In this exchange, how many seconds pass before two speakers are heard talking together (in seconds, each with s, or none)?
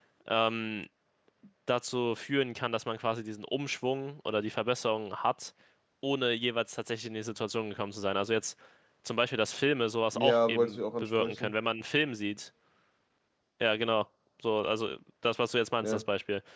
10.1 s